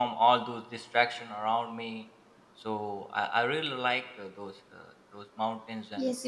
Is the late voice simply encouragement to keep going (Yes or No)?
No